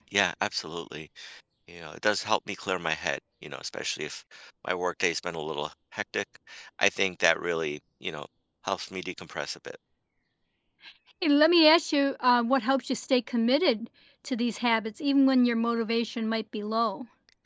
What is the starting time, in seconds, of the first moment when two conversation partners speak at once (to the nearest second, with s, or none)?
none